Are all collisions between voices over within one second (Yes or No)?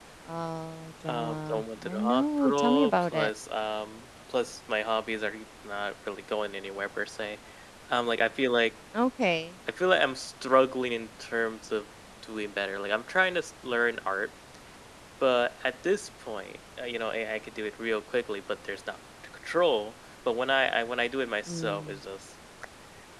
No